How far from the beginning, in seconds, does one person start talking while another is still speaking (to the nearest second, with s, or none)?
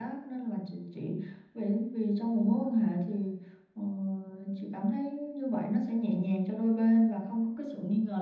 none